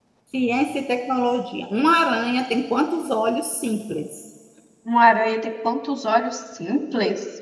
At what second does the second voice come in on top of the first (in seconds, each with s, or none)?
none